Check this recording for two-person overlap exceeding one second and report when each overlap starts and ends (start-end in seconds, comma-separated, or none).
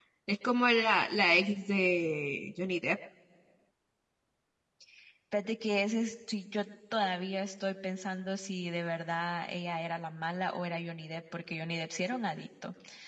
none